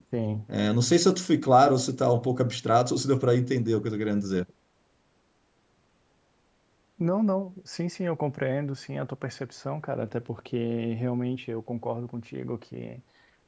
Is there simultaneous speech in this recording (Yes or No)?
No